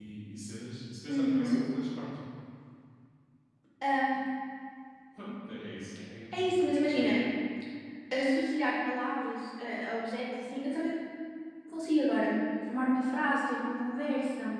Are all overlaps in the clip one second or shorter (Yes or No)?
Yes